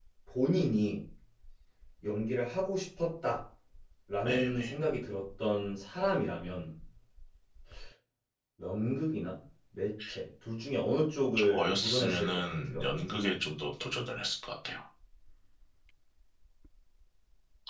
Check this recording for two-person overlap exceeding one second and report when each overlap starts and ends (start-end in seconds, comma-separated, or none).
11.4-12.8